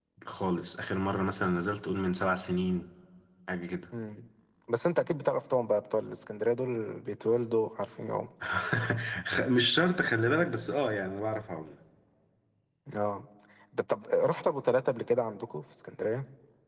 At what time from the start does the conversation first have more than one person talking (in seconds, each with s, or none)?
none